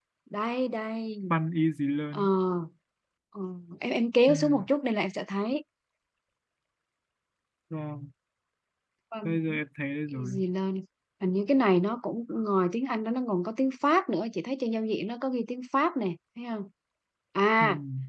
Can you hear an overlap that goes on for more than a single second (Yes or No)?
No